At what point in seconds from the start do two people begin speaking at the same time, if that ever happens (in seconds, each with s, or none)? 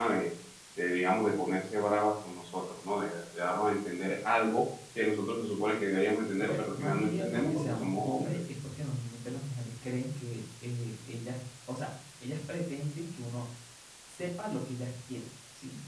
6.4 s